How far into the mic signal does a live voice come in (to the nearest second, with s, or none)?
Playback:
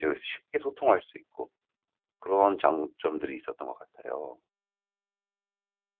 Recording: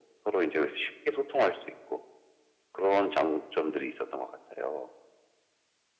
none